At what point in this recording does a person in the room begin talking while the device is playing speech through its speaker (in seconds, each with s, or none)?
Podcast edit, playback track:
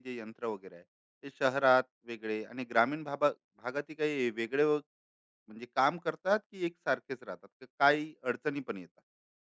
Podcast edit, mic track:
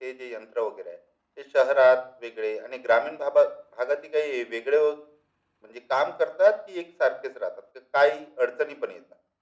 none